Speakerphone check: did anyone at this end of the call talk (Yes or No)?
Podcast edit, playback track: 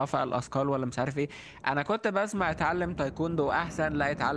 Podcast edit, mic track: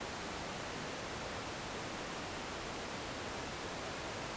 No